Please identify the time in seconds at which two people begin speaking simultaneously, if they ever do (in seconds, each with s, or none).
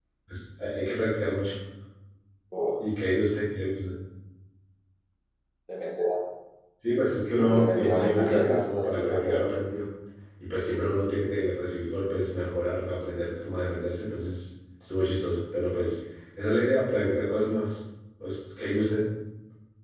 7.4 s